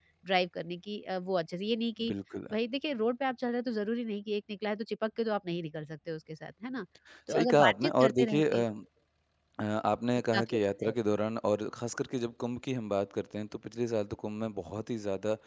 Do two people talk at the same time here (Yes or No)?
Yes